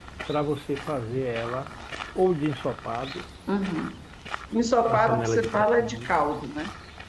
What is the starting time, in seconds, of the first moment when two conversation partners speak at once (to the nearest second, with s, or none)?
5 s